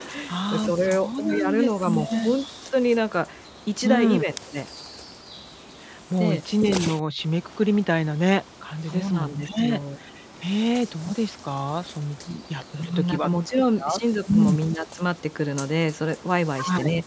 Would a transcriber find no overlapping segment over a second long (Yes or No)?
No